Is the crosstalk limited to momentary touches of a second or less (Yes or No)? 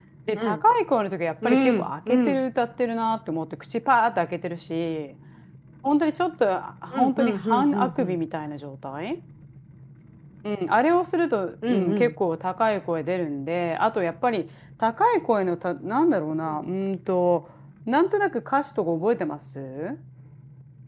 No